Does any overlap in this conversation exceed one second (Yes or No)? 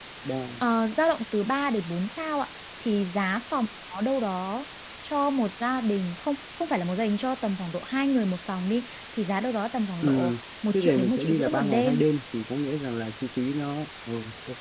Yes